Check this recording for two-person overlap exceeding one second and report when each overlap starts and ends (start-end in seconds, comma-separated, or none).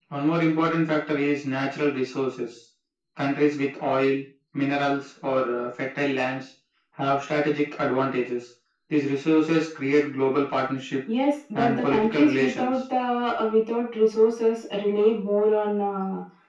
11.5-12.8